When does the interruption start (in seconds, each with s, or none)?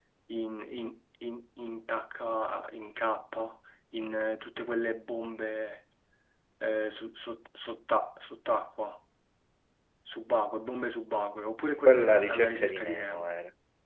11.8 s